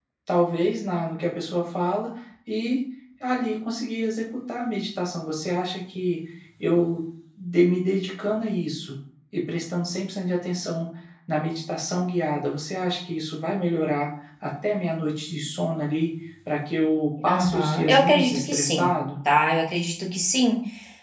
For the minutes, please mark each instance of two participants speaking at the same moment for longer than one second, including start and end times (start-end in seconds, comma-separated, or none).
17.3-18.9